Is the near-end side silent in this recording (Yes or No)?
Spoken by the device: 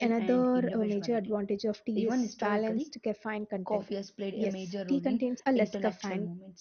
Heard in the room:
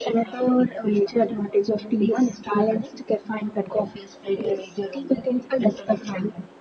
Yes